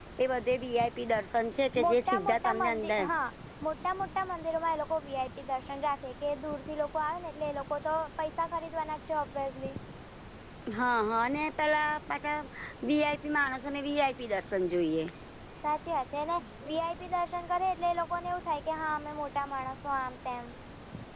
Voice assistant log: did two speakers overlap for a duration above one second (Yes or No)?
Yes